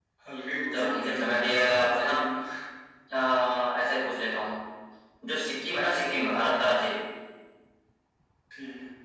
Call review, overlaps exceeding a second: present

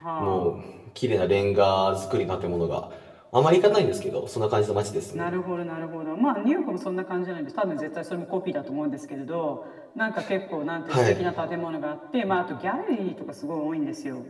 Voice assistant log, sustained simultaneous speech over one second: none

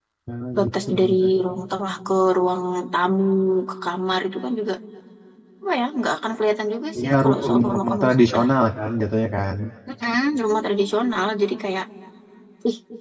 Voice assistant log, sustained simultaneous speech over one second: present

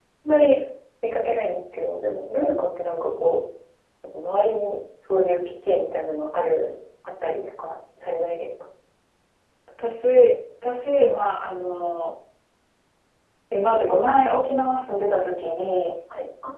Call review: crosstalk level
none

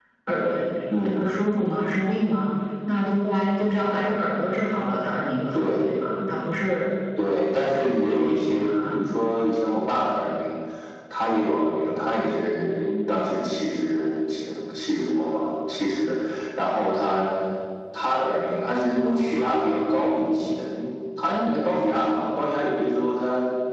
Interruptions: present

